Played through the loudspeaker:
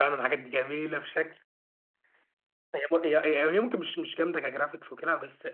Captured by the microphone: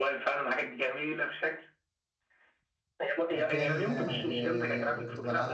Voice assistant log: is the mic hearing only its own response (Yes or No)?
No